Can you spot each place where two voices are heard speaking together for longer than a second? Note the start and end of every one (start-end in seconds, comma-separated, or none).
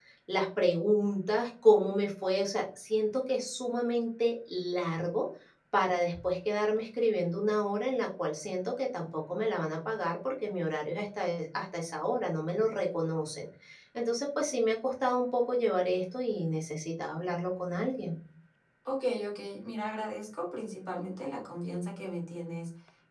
none